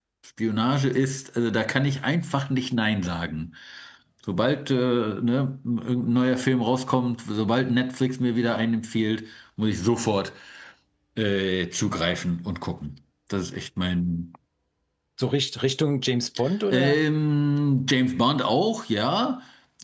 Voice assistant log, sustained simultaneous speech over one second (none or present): none